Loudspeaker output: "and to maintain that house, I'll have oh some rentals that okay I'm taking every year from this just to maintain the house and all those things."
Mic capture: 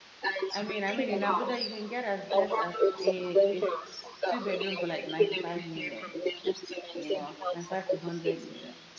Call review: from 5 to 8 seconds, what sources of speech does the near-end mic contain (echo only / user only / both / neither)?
both